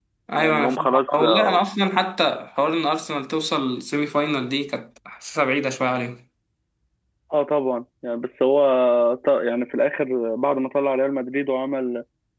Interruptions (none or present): present